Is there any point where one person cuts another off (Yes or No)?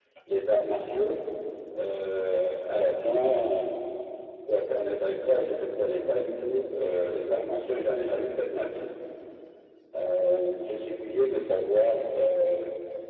No